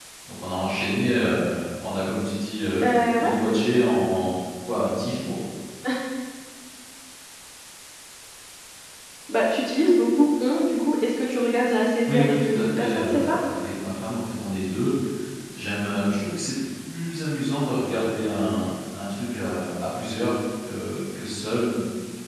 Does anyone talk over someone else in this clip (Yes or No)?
Yes